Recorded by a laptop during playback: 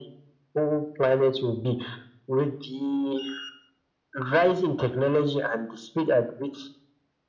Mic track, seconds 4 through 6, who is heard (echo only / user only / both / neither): echo only